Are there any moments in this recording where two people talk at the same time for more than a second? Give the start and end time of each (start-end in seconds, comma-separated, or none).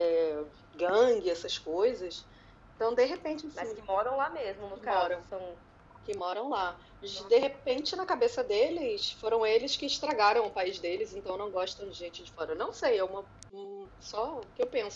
none